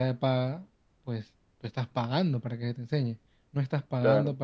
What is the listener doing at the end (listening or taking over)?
listening